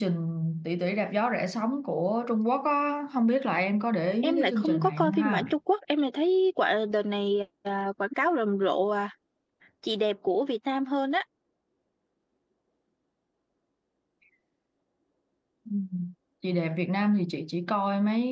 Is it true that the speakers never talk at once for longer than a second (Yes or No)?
No